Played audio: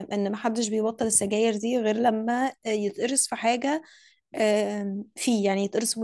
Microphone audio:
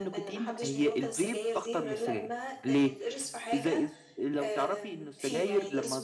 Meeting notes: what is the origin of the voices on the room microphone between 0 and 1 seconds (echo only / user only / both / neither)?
both